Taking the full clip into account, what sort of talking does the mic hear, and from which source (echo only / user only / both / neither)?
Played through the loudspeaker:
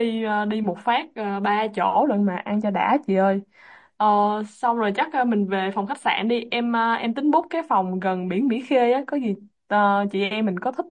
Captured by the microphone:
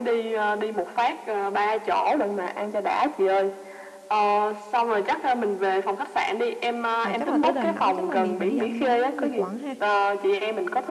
both